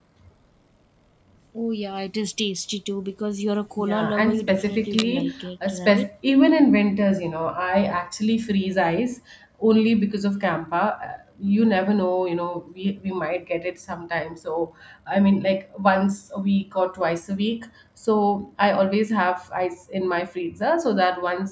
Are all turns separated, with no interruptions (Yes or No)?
No